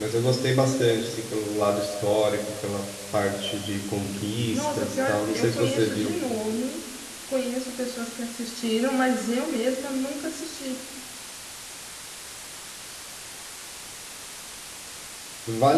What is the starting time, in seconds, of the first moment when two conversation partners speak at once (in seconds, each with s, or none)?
4.5 s